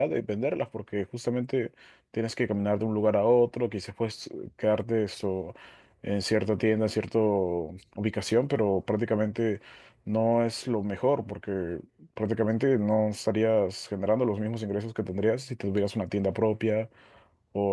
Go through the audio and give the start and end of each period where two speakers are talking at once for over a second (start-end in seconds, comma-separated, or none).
none